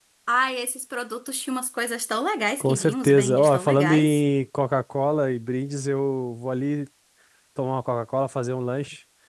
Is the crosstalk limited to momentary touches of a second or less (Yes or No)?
No